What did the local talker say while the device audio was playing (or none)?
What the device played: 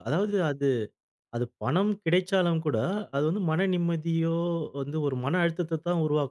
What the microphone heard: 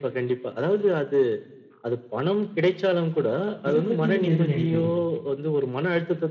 இத பத்தி நீங்க என்ன நினைக்கிறீங்க?